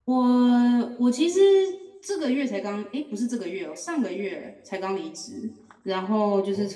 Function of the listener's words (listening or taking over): listening